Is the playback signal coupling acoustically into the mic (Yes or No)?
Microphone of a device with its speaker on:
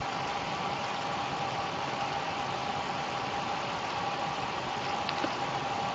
No